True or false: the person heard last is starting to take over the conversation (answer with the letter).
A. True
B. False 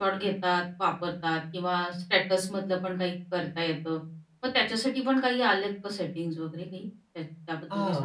A